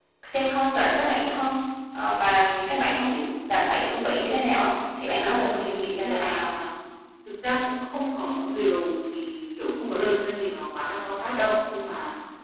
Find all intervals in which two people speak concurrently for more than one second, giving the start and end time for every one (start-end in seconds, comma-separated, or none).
5.2-6.5